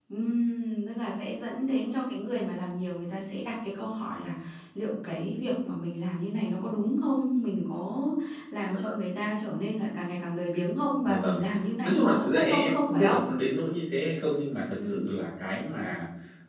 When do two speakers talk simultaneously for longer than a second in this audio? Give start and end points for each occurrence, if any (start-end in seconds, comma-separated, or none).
11.8-13.2